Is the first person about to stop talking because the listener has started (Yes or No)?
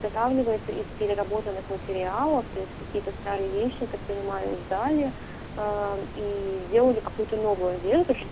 No